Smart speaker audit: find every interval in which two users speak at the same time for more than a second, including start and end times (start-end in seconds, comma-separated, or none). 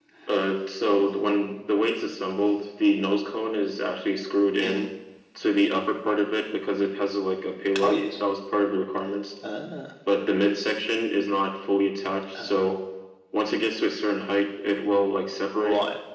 none